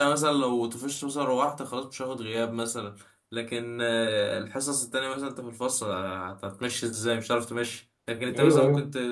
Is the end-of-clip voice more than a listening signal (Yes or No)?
No